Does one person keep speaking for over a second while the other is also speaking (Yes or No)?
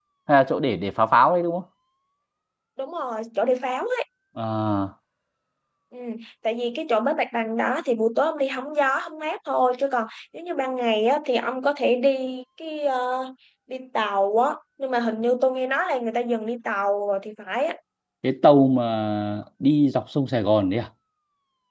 No